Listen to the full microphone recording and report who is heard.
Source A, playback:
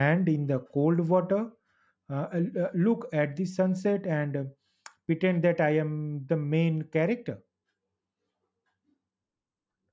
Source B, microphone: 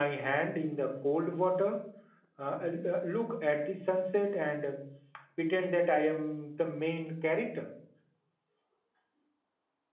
echo only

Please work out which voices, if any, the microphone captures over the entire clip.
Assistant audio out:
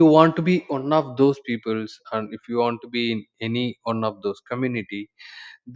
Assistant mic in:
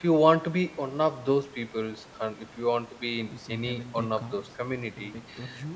both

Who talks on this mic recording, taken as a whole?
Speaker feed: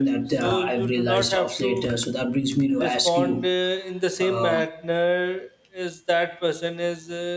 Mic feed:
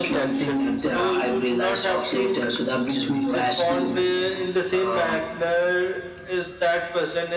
both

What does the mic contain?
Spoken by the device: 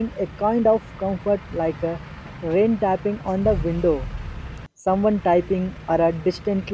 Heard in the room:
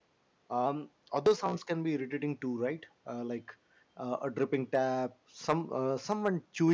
user only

